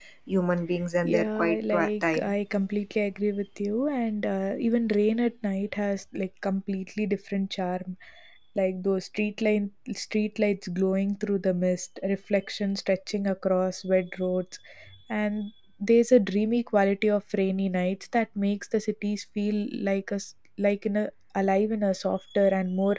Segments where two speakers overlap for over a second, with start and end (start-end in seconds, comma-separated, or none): 1.0-2.3